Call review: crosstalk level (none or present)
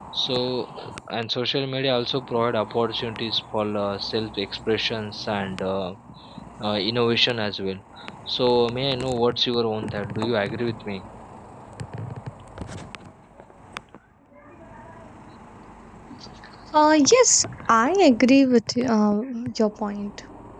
none